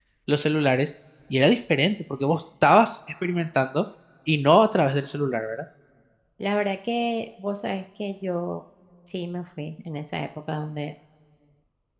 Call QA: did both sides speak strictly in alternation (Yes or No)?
Yes